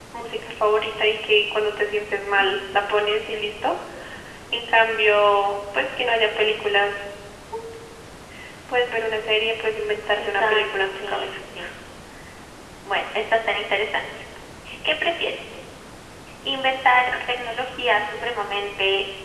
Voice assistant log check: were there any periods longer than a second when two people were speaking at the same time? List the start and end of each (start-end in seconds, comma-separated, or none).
10.2-11.4